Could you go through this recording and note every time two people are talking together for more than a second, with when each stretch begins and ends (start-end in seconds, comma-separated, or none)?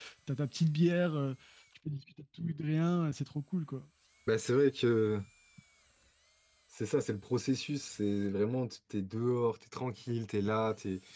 none